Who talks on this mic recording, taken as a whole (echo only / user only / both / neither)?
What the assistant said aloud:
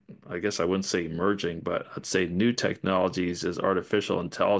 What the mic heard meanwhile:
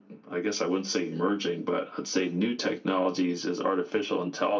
echo only